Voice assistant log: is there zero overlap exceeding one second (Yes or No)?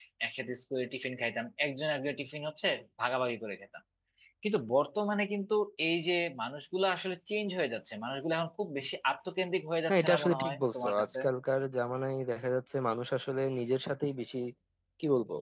No